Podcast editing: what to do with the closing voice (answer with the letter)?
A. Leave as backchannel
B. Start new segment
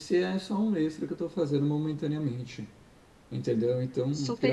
A